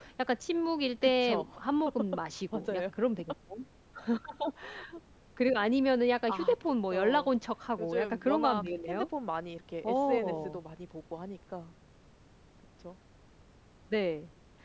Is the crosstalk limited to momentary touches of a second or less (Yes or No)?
No